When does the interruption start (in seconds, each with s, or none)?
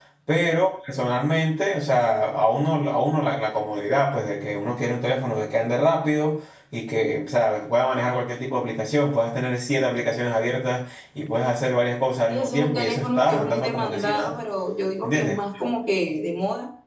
12.3 s